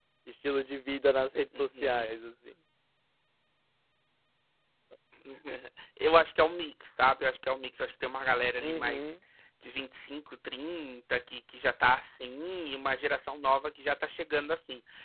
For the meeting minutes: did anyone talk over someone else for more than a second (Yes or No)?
No